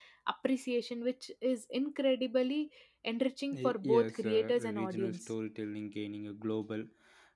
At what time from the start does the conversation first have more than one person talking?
3.5 s

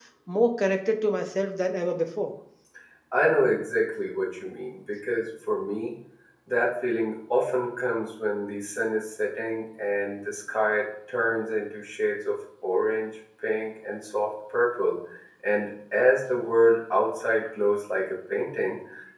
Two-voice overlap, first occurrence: none

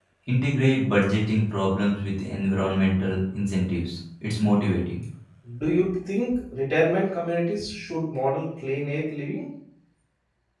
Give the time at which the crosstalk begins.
none

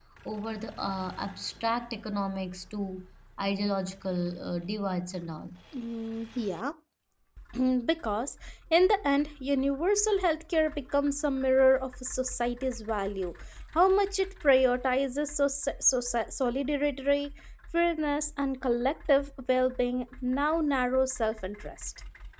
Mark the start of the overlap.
none

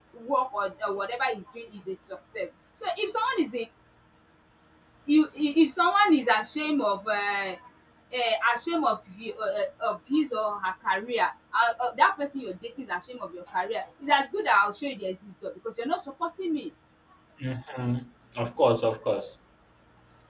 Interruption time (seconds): none

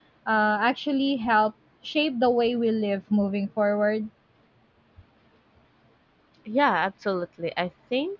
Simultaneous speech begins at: none

